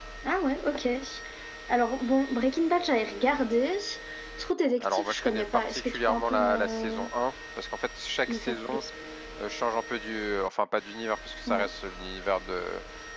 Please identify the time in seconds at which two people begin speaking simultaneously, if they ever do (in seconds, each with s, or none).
4.8 s